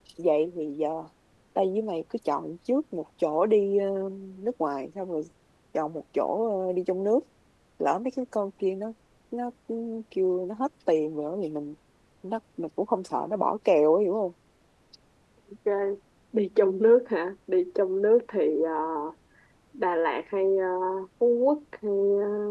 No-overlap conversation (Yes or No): Yes